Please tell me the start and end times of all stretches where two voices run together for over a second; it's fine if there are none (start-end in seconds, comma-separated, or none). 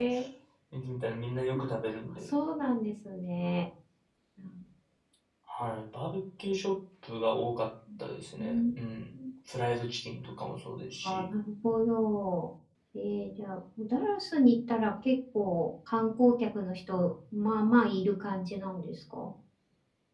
none